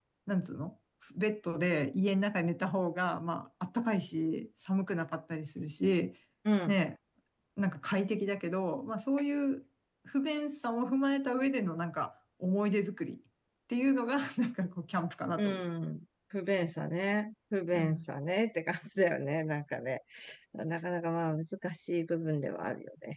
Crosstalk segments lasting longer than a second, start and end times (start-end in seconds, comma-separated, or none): none